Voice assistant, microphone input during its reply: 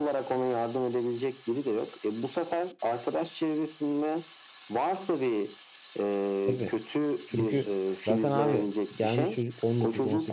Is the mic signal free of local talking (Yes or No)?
No